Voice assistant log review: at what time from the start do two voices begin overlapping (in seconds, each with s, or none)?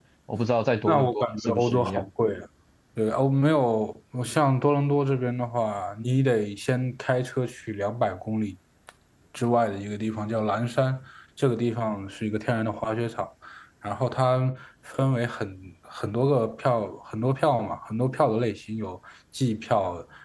0.9 s